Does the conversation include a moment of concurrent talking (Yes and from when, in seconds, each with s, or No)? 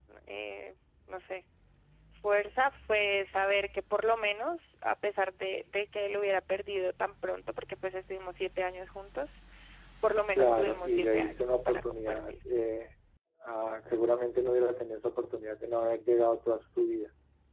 Yes, from 10.3 s